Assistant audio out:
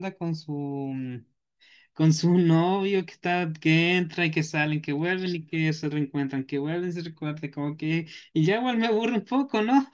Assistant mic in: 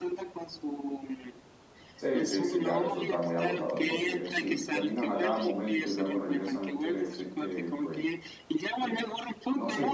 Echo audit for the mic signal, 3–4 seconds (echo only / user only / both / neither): both